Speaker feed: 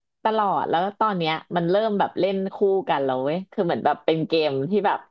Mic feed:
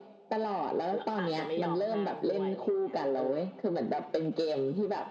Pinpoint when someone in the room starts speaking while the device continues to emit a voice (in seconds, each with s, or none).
0.9 s